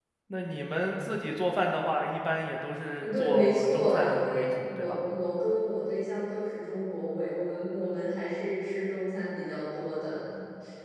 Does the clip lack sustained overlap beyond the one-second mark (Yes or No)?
No